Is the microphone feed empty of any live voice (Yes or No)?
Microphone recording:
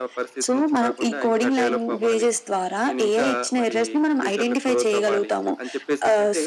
Yes